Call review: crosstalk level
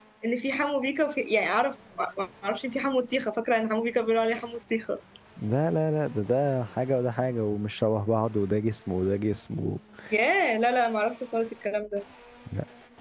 none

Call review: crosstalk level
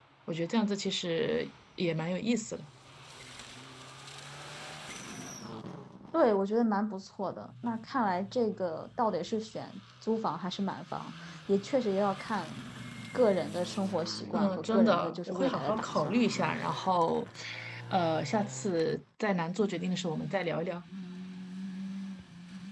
present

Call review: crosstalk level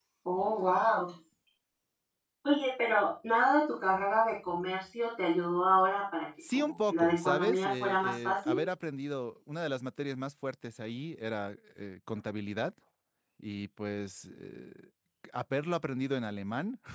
present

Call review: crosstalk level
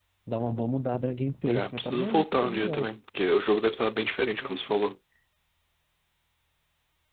present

